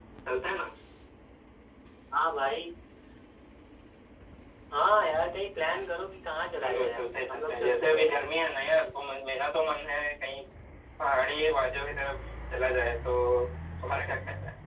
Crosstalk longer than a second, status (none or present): present